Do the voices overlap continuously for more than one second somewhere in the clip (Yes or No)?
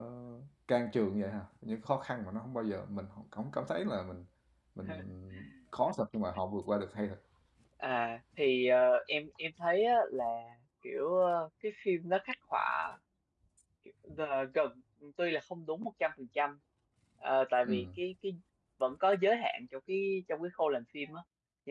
No